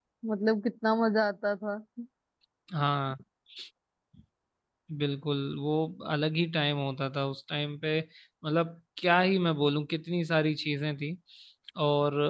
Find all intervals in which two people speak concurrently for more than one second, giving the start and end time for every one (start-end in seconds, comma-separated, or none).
none